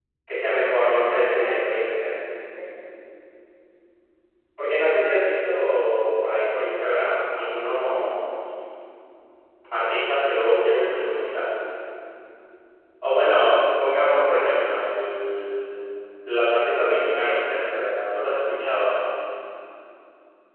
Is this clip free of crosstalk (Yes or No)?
No